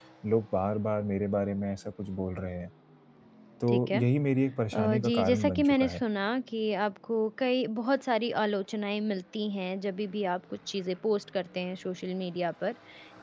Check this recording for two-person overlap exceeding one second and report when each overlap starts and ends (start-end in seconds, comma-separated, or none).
4.7-6.0